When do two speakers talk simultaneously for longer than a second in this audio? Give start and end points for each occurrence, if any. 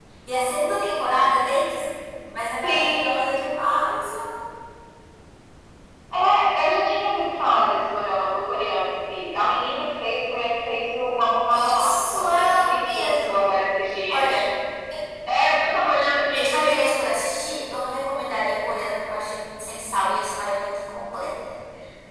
11.8-13.3

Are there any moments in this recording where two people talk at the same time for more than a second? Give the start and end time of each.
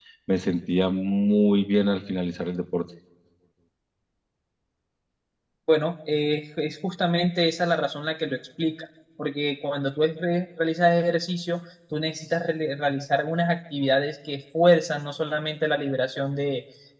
none

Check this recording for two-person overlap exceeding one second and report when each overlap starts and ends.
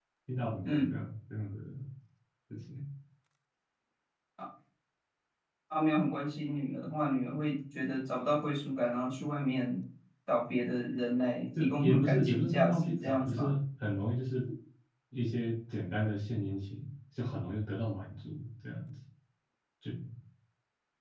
11.6-13.6

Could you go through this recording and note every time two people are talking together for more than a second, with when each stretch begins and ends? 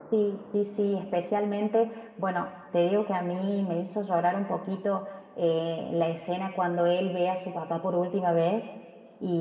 none

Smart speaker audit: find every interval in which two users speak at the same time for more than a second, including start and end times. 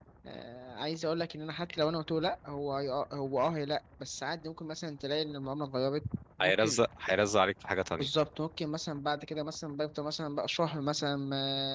none

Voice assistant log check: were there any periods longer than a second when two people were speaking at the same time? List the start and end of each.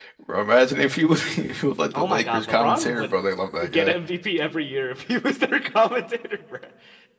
1.9-3.1

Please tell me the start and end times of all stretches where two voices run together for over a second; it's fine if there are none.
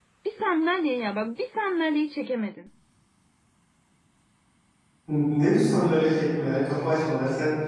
none

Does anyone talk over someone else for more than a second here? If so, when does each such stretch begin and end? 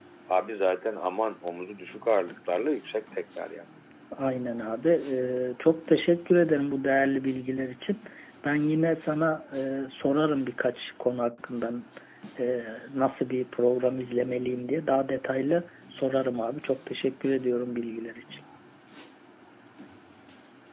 none

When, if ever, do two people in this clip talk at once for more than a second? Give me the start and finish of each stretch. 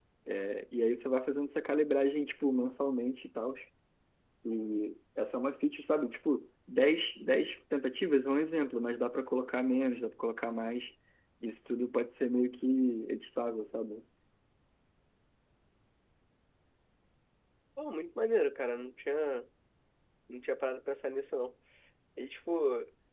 none

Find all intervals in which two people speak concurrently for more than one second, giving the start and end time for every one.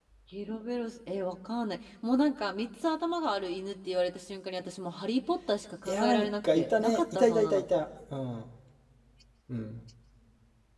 5.8-7.6

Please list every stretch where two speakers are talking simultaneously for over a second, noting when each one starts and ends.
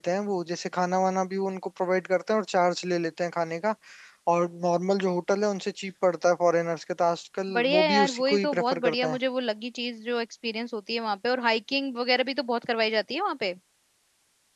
7.5-9.2

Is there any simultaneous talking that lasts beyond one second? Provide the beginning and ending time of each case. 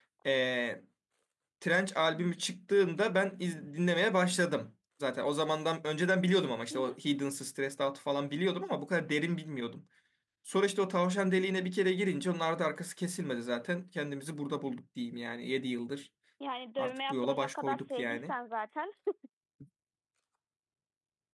16.8-18.3

